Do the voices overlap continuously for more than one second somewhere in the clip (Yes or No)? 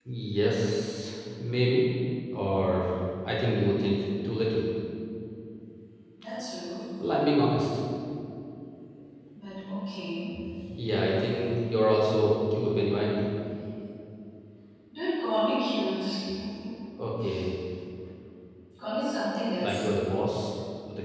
No